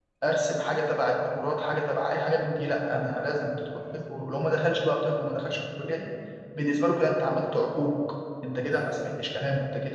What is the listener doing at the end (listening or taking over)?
listening